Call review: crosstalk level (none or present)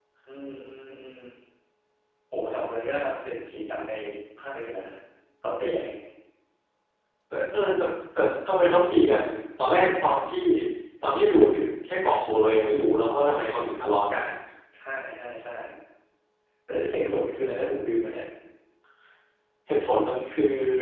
none